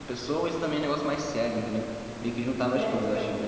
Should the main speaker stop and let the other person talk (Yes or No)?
Yes